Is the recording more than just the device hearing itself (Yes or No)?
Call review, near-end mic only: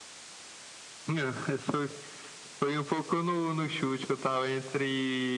No